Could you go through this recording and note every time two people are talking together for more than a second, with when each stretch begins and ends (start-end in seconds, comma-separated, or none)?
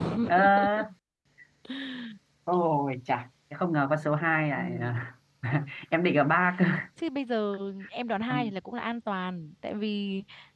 none